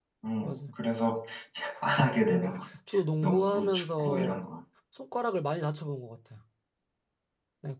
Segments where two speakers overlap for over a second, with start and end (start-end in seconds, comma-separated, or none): 3.2-4.4